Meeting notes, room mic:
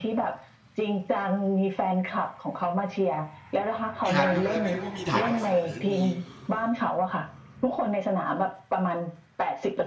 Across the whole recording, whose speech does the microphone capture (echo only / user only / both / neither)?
both